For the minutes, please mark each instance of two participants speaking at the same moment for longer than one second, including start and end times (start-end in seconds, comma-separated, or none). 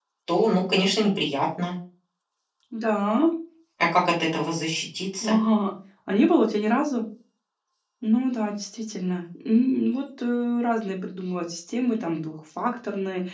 none